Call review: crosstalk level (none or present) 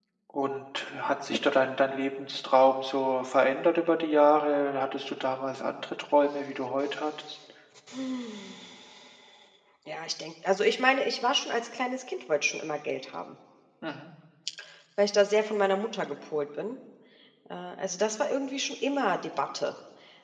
none